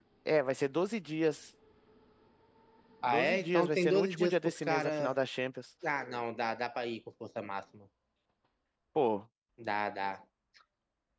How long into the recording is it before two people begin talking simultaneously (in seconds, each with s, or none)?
3.0 s